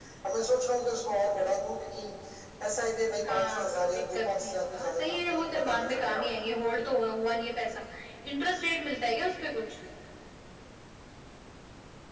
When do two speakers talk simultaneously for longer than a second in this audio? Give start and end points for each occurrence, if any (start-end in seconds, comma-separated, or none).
3.2-6.3